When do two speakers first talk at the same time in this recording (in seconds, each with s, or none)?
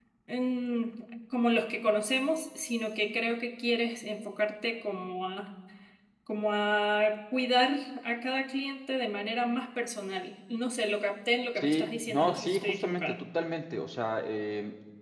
11.6 s